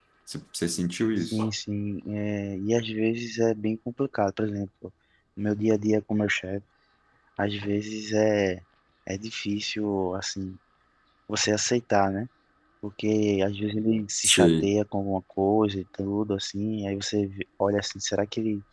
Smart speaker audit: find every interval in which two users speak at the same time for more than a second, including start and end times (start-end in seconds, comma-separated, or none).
none